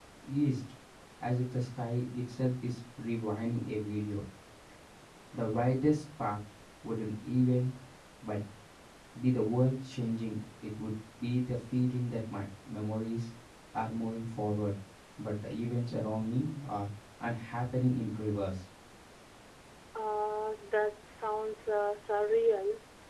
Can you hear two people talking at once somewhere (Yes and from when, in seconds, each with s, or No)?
No